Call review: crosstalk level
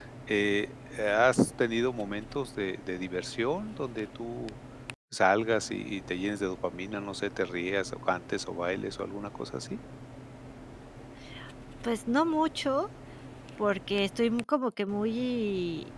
none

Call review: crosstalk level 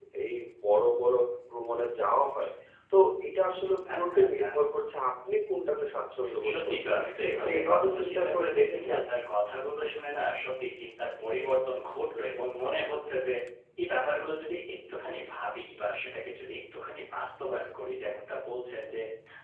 present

